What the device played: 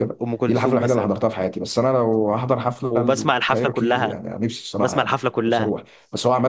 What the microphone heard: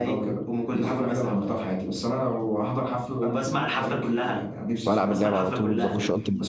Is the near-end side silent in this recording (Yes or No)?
No